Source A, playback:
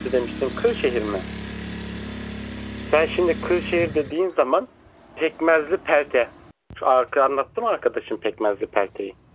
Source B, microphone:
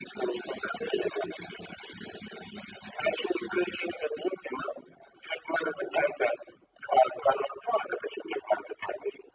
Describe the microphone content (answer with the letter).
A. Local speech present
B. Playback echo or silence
B